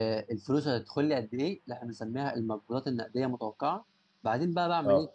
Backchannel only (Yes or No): Yes